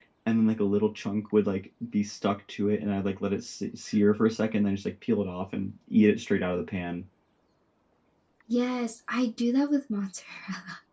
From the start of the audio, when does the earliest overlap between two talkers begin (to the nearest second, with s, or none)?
none